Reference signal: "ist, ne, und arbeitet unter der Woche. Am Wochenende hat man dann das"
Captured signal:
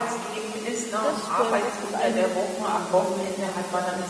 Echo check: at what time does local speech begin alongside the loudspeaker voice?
1.0 s

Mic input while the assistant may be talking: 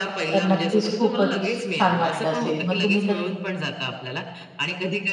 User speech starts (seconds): 0.3 s

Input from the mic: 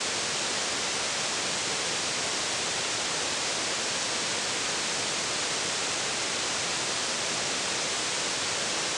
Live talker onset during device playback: none

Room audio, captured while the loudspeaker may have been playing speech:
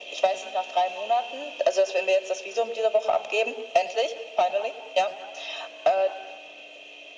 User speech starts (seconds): none

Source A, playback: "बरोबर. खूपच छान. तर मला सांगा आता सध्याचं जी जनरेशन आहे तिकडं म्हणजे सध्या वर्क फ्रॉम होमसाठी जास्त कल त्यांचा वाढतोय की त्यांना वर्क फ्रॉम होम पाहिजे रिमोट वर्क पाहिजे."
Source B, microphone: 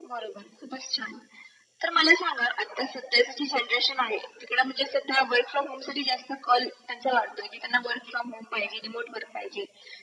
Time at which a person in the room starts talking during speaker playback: none

